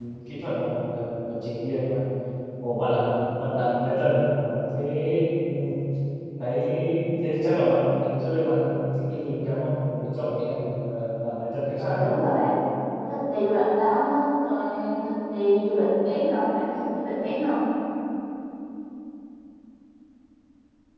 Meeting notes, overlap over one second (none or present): none